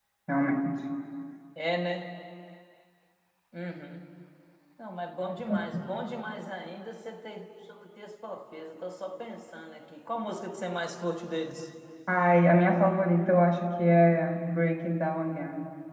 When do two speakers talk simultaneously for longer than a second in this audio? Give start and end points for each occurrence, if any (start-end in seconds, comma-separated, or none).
none